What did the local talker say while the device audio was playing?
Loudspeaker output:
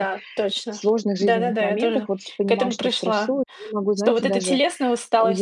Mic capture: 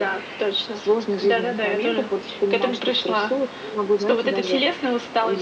none

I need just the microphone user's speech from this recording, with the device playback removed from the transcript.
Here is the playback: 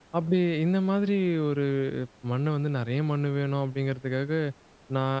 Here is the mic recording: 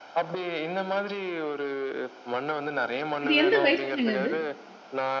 இது எந்த வயசுலங்க இது?

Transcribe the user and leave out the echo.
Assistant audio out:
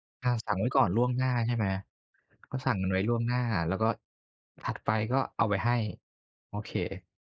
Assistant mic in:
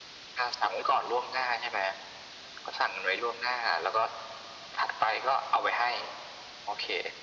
none

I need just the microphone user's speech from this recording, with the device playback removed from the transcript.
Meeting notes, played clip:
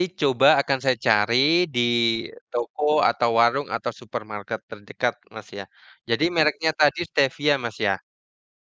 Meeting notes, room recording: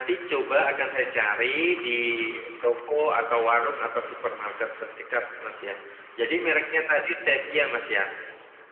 none

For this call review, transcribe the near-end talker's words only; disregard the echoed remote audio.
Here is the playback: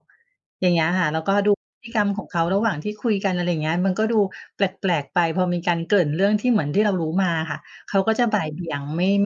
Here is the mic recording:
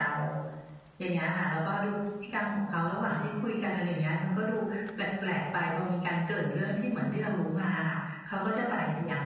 none

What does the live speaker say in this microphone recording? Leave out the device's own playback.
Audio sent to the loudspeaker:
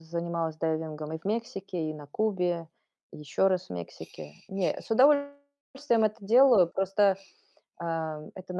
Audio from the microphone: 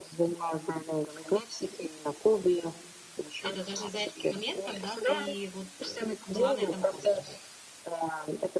Это даже за этот момент, когда ты вот, э, была на этом острове.

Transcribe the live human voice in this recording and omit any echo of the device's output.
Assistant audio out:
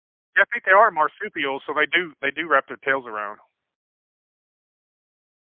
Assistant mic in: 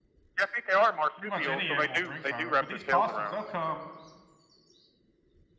pretty much any animal drinks out of it, but these possums, they'll come

